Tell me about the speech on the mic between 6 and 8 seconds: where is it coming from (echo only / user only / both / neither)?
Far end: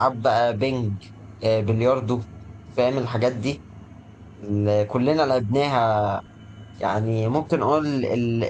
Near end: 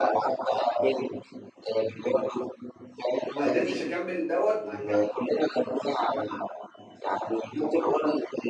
echo only